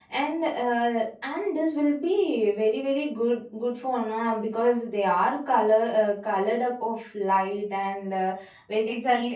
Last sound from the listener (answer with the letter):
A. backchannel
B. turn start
B